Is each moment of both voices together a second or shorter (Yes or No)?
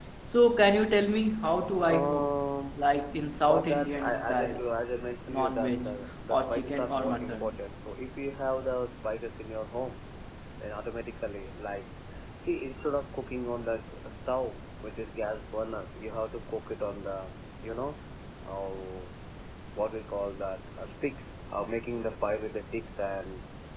No